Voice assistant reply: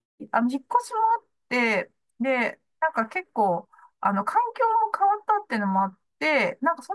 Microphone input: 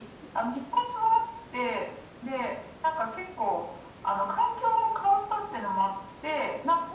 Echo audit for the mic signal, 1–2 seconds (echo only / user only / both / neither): echo only